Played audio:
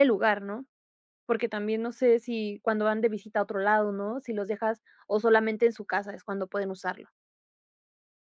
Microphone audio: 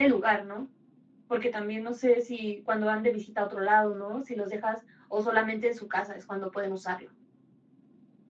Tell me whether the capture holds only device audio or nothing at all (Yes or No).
Yes